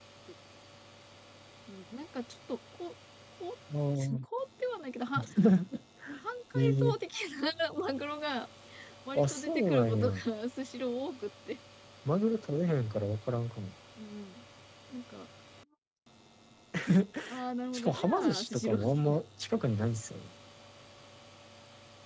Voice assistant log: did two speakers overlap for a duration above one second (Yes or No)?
Yes